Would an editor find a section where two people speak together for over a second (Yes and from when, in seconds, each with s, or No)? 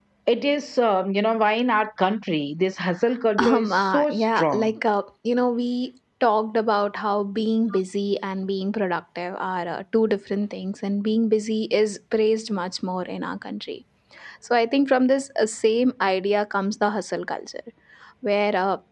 Yes, from 3.4 s